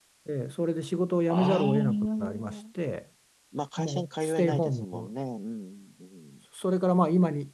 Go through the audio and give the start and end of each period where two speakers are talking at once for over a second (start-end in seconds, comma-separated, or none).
1.3-2.6, 3.8-5.1